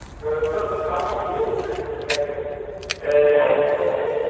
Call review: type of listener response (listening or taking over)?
listening